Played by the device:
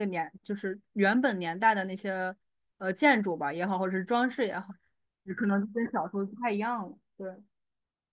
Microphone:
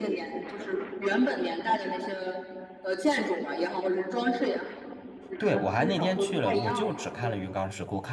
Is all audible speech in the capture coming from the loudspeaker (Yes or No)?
No